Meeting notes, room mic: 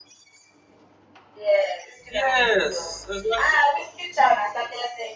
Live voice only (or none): Yes, it's not